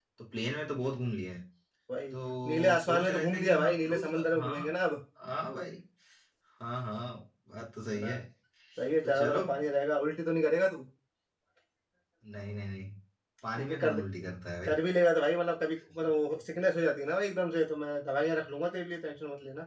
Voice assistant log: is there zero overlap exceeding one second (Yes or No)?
No